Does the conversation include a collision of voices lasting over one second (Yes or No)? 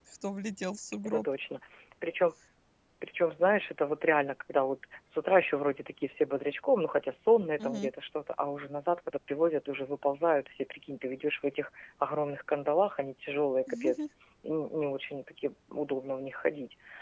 No